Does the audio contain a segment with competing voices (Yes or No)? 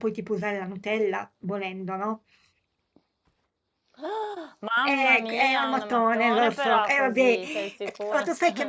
Yes